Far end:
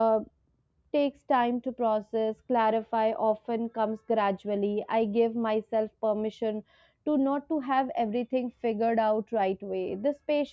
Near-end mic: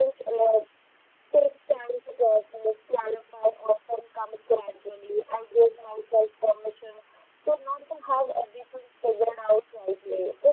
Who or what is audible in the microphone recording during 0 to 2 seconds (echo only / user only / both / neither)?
echo only